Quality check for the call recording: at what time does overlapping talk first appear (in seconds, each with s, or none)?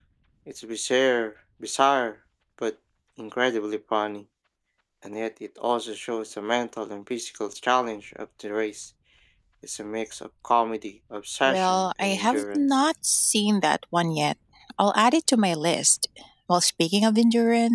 11.4 s